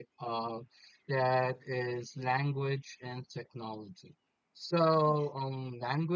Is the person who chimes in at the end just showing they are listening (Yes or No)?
Yes